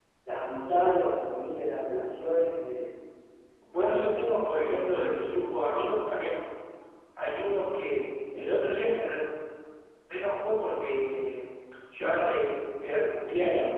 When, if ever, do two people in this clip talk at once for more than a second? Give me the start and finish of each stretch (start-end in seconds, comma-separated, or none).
3.7-5.3